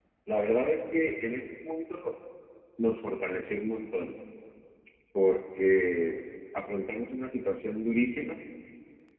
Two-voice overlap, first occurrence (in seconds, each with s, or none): none